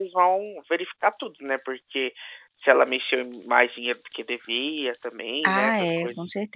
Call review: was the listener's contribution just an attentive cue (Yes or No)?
No